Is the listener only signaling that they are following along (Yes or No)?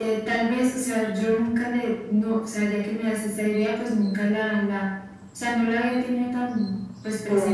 Yes